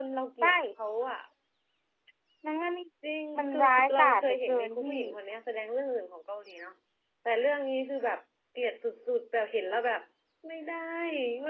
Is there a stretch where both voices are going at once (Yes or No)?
Yes